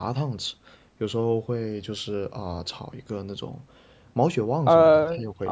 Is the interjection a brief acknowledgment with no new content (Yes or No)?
No